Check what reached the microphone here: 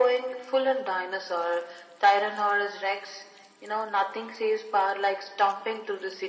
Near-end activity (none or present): none